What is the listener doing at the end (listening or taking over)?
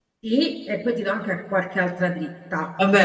taking over